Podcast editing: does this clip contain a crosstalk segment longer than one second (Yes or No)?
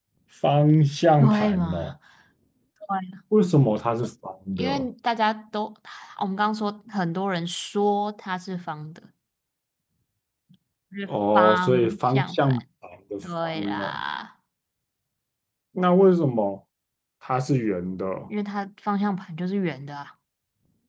Yes